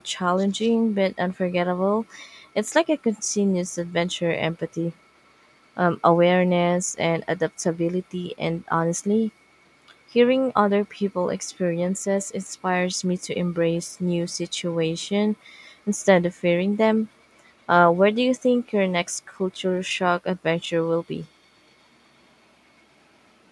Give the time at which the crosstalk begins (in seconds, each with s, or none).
none